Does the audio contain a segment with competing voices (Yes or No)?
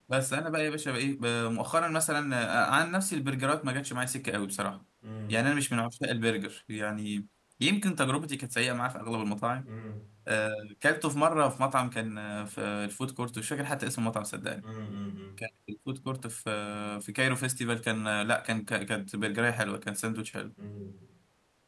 No